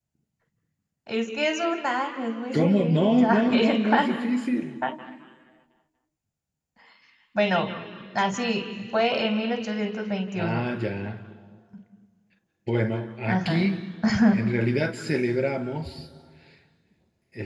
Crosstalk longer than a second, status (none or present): present